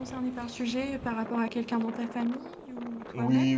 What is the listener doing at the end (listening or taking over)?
taking over